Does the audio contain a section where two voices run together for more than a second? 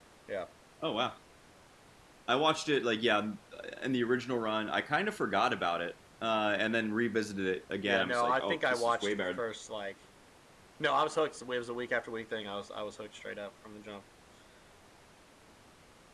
Yes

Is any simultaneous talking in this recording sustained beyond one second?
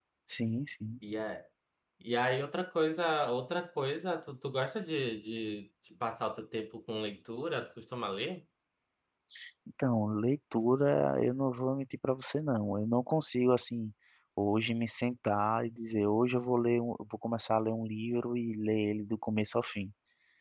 No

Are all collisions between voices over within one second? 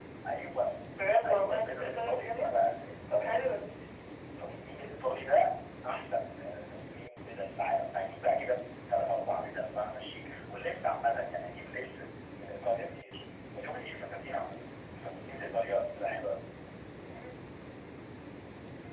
No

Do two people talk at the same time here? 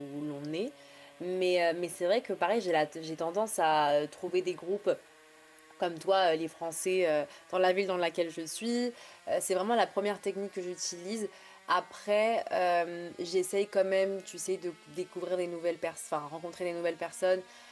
No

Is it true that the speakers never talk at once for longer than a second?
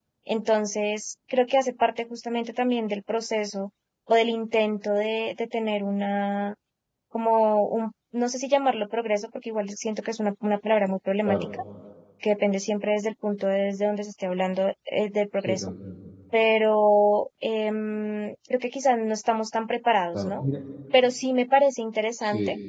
Yes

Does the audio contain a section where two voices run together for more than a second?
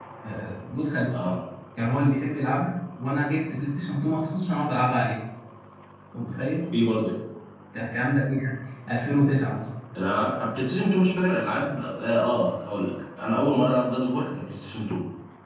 No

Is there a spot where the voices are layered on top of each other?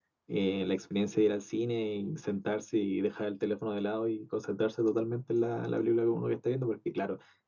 No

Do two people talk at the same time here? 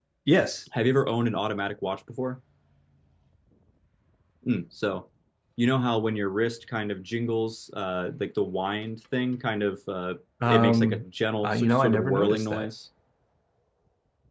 Yes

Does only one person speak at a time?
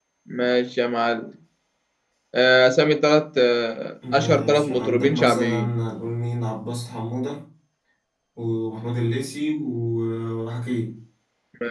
No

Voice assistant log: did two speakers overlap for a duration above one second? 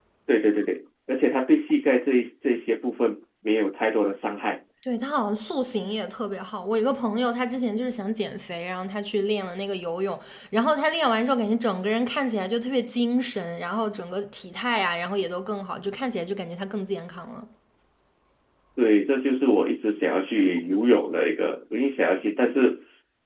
No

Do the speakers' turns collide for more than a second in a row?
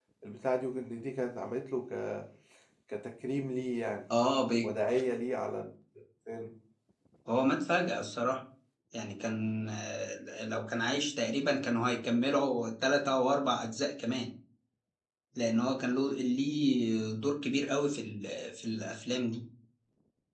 No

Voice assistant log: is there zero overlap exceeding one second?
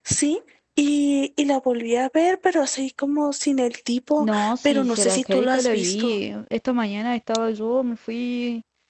No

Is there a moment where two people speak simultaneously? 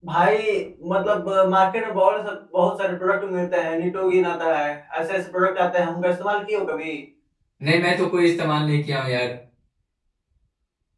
No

